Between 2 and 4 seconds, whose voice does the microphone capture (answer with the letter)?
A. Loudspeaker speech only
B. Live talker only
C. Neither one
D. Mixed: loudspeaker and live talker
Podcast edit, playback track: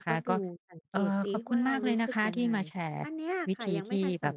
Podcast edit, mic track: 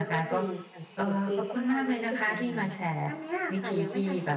A